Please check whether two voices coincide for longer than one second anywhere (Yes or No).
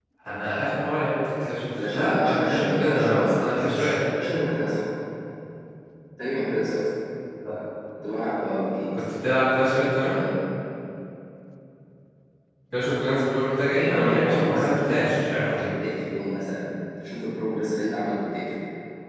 Yes